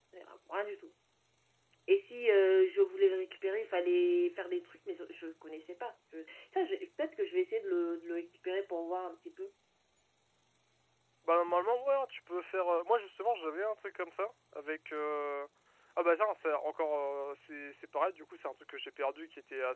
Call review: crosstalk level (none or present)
none